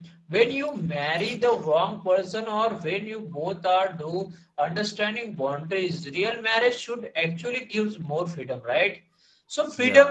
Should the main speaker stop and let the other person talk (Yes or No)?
No